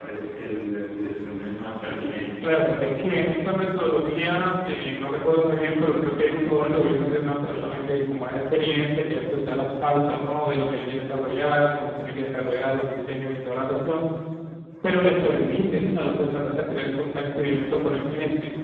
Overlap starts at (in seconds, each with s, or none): none